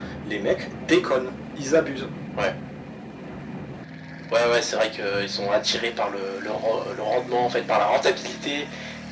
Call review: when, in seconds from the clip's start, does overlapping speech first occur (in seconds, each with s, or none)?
none